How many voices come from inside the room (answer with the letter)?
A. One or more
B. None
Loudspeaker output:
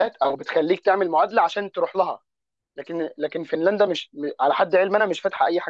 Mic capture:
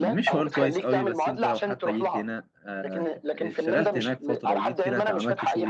A